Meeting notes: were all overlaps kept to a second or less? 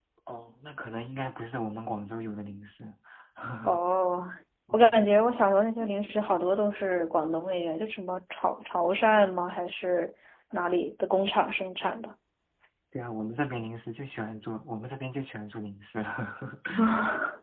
Yes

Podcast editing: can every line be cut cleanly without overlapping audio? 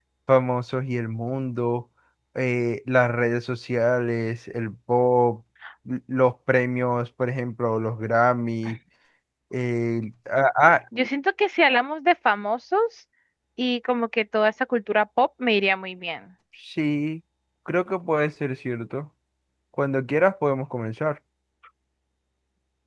Yes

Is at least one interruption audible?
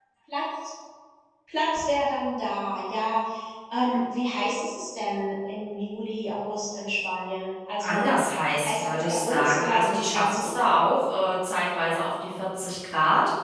Yes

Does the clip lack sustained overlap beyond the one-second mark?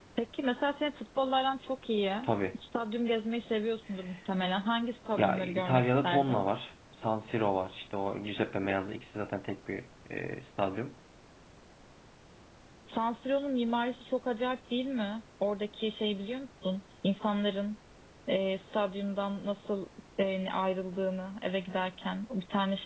No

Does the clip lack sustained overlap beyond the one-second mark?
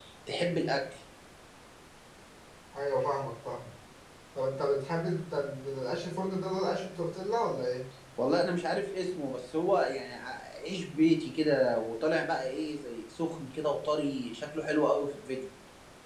Yes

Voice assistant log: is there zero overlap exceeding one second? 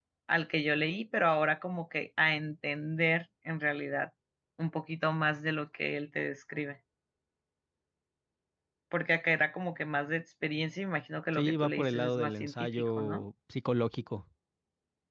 No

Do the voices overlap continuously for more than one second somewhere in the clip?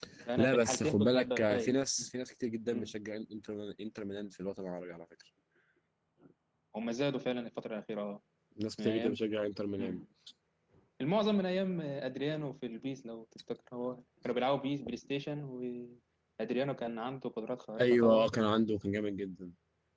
Yes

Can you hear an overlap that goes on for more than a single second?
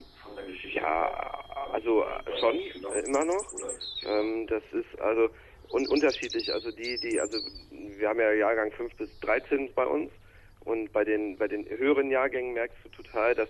Yes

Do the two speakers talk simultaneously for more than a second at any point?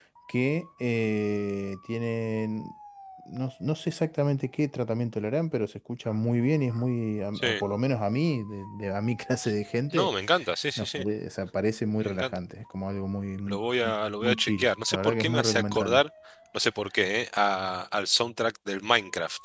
Yes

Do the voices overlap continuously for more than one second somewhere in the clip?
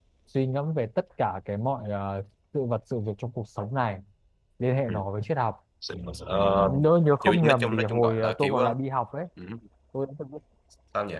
Yes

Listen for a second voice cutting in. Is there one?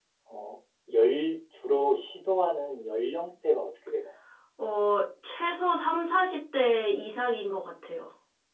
No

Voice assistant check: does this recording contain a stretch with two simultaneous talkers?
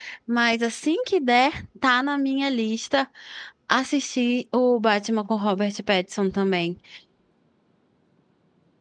No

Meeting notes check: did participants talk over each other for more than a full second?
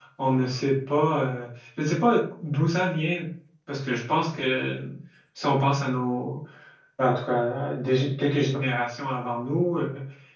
No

